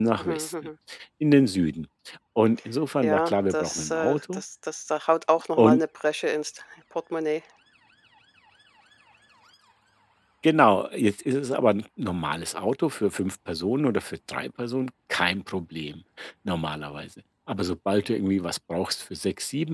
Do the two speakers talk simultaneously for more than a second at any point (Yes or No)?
Yes